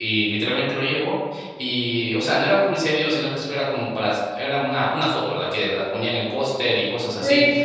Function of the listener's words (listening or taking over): listening